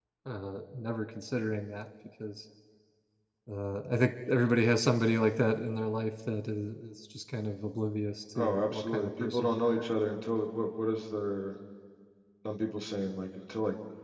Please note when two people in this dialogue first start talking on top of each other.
8.3 s

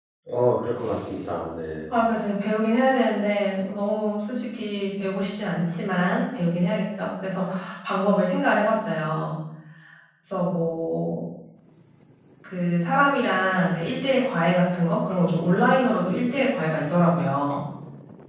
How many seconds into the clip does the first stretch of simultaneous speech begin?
none

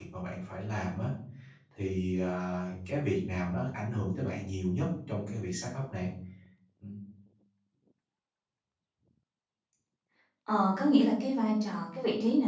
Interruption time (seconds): none

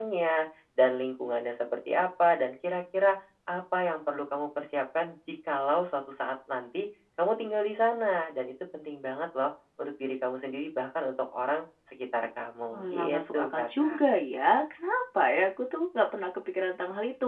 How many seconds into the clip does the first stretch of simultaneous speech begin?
12.7 s

